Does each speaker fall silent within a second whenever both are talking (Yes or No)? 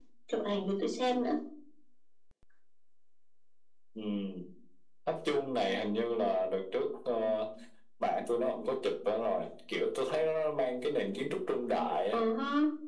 Yes